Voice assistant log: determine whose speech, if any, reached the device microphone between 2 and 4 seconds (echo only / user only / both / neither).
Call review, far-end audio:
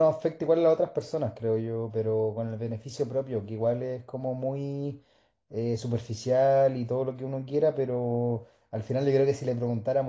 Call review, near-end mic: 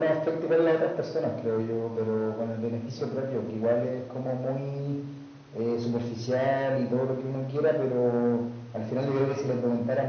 echo only